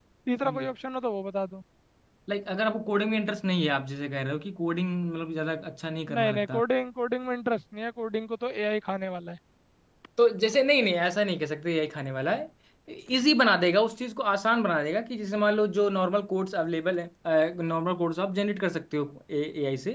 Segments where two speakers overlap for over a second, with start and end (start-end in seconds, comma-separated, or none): none